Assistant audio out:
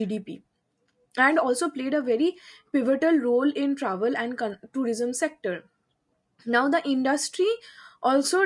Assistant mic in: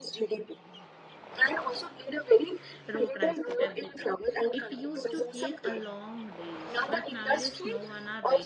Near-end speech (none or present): present